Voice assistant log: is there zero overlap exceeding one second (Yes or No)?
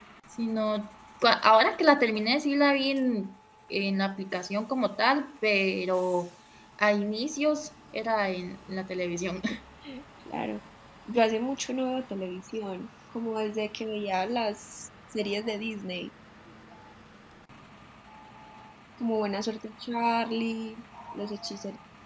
Yes